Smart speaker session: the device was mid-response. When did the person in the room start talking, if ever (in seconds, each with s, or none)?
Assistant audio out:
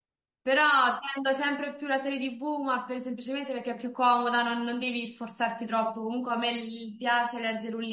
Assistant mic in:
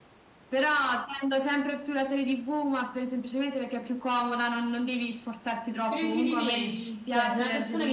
5.9 s